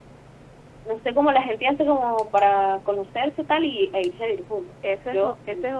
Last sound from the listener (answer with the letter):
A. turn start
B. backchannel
A